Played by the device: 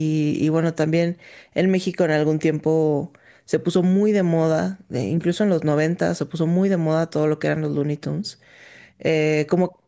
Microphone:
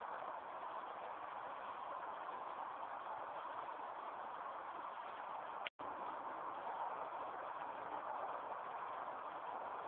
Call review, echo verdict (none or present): none